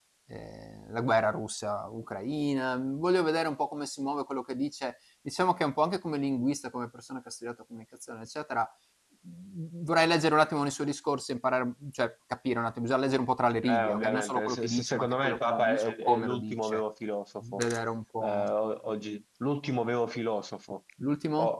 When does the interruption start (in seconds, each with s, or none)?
13.6 s